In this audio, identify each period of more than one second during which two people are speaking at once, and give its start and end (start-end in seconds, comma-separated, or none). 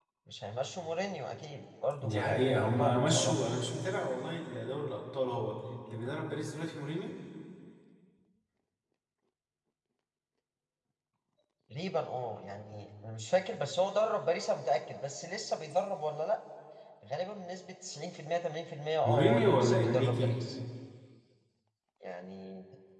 2.0-3.4, 19.0-20.4